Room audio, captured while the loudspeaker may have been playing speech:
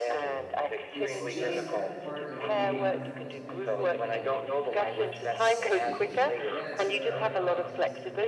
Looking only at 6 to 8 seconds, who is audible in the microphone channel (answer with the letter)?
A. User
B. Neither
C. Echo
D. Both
D